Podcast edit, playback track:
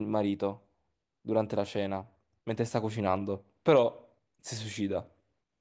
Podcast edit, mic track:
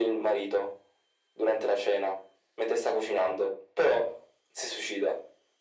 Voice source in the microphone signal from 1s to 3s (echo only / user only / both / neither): echo only